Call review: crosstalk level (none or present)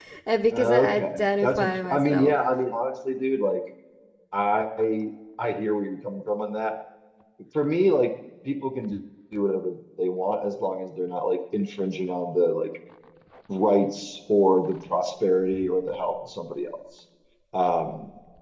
present